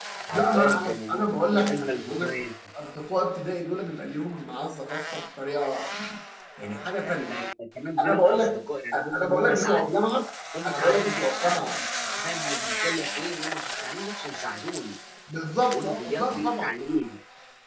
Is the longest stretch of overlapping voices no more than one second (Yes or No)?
No